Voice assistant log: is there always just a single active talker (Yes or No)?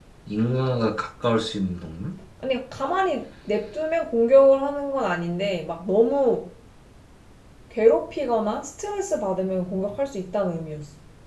Yes